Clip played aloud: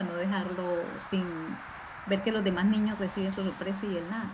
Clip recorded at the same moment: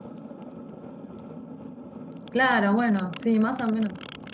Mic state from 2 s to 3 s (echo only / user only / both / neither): user only